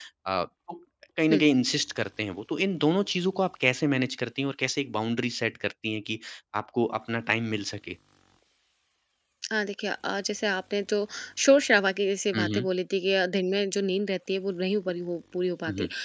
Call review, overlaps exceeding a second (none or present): none